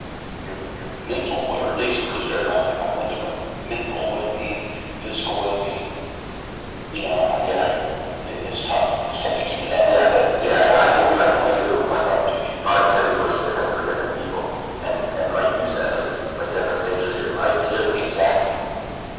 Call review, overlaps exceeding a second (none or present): present